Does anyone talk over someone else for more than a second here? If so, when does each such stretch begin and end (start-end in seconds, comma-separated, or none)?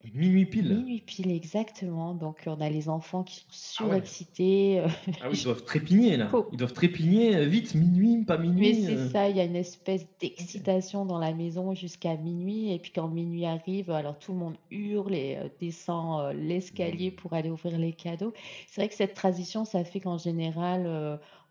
none